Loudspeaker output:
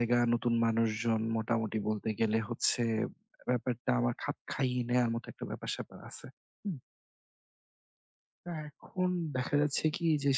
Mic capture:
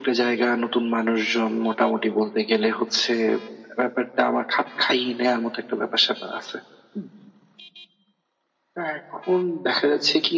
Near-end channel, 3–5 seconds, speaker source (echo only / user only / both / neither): echo only